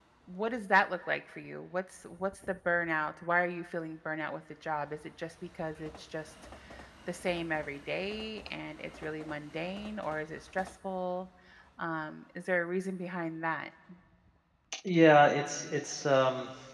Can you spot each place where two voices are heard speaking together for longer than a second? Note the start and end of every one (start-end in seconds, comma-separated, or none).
none